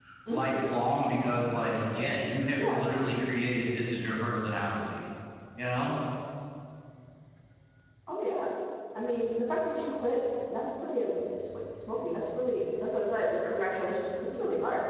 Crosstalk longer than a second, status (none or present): none